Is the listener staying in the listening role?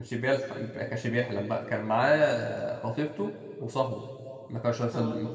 Yes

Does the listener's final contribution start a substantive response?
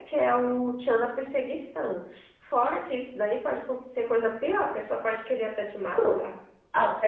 Yes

